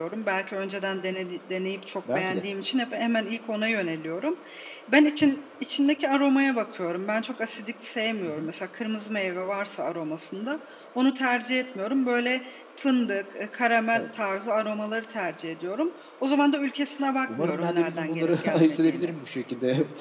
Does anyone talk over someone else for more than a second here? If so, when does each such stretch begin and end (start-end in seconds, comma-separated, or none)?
17.3-19.1